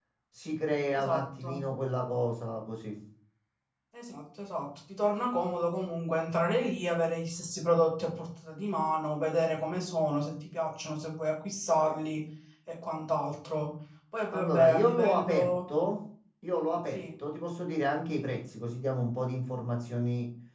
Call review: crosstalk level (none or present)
present